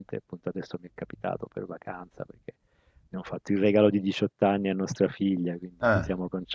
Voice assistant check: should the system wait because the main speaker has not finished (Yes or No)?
Yes